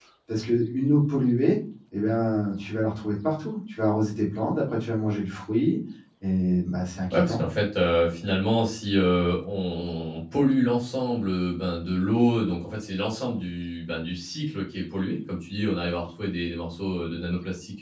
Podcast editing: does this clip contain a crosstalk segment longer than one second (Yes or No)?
No